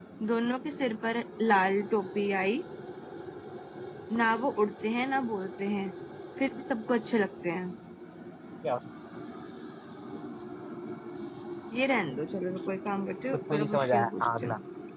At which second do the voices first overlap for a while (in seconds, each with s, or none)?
13.3 s